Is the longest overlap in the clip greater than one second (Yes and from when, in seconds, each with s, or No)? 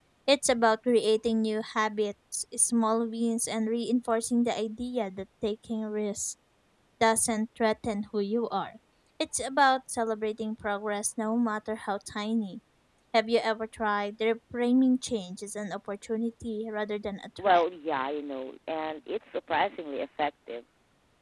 No